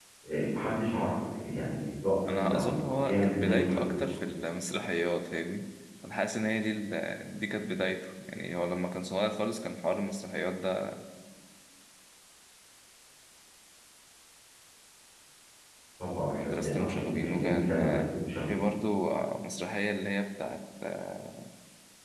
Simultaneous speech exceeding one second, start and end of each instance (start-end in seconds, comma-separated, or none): 2.3-4.2, 16.3-18.0